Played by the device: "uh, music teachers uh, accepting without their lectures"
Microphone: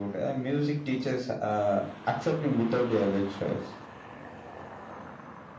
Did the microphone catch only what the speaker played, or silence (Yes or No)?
Yes